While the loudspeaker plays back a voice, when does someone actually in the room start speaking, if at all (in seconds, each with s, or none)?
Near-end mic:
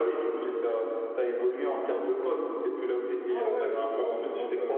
3.3 s